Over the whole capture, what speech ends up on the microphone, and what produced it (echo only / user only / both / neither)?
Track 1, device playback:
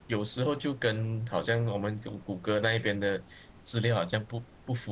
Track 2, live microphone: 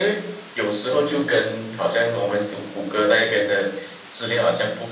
echo only